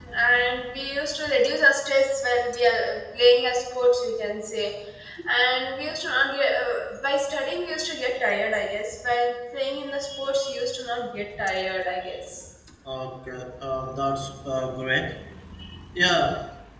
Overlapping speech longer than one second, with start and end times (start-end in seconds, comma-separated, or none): none